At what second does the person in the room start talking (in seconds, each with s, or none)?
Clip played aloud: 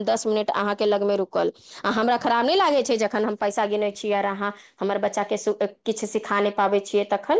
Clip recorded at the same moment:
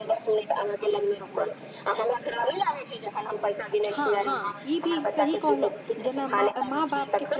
3.9 s